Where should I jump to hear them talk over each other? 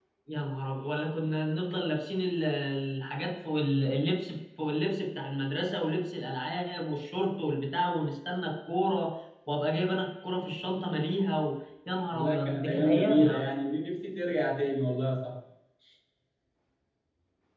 12.1 s

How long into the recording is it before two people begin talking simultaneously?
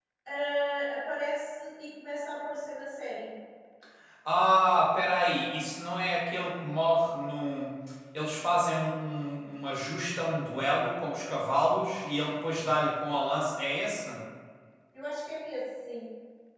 none

